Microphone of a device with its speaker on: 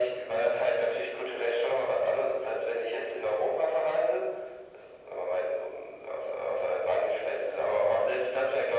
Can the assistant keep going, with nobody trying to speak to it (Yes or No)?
Yes